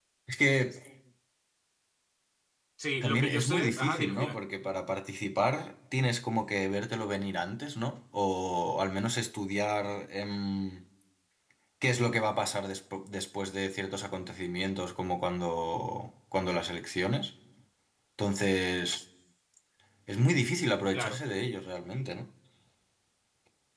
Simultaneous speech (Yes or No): Yes